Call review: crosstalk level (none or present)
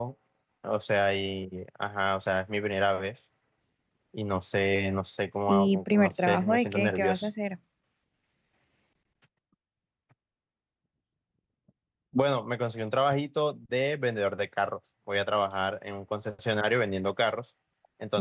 present